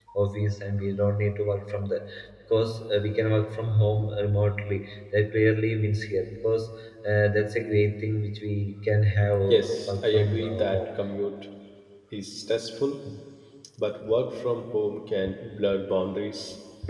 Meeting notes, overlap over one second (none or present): present